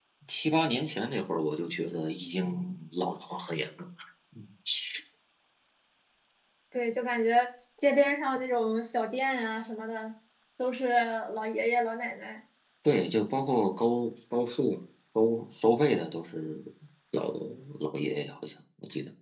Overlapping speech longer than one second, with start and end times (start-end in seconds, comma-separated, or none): none